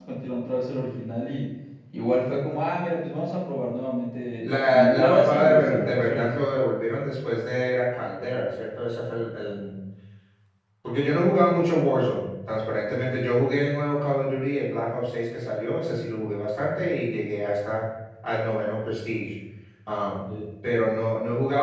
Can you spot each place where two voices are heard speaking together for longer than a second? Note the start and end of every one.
4.4-6.3

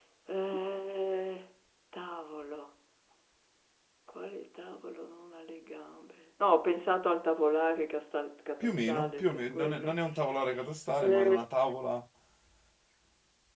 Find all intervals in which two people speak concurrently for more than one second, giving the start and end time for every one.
8.6-9.9

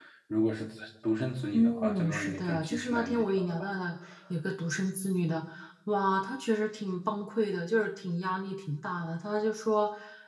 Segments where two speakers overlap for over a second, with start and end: 1.5-3.7

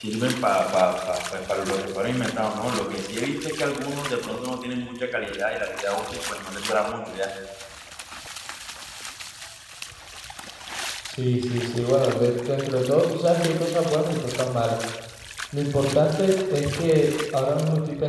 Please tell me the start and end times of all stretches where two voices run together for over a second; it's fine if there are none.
none

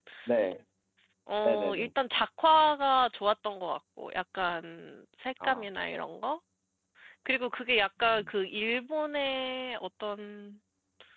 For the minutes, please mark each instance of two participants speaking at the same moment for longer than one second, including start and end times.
none

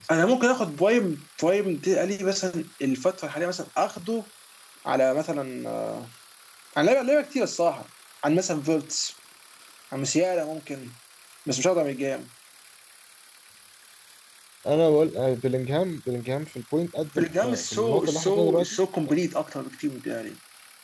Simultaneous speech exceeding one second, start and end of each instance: 17.2-18.8

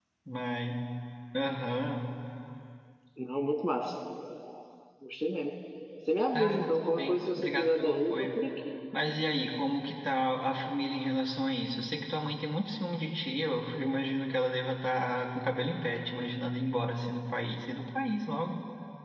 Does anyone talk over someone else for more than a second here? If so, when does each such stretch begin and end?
6.3-8.3

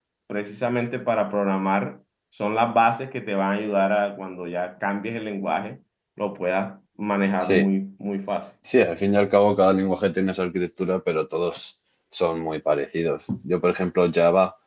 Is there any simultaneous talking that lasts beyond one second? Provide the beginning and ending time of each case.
none

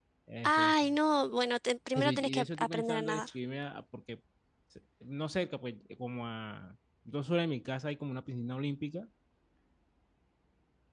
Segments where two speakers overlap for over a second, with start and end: 1.9-3.2

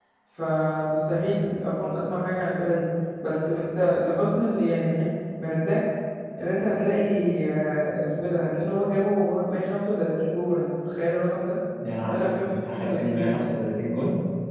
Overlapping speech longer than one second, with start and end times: 12.0-13.4

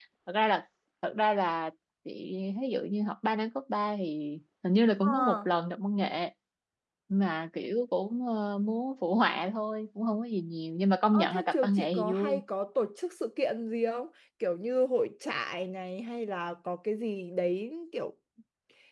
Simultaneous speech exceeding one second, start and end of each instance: 11.1-12.4

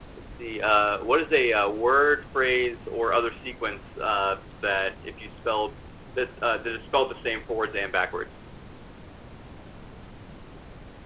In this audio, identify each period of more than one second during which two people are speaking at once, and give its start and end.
none

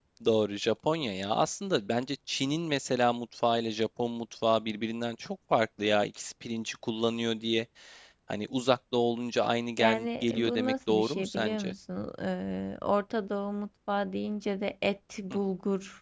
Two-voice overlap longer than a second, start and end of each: 9.8-11.7

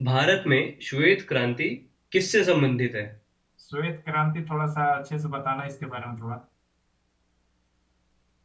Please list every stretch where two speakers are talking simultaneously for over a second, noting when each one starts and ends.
none

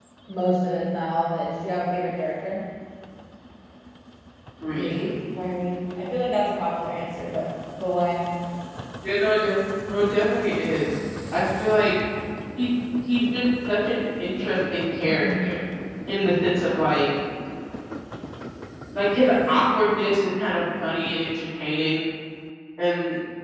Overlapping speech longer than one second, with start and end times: none

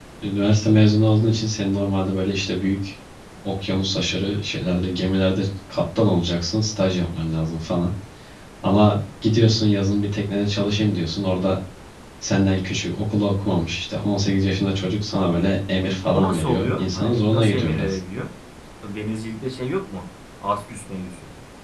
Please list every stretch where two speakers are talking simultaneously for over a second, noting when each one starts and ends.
16.1-18.0

